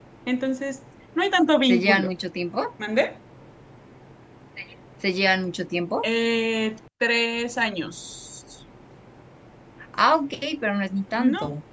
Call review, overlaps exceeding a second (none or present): none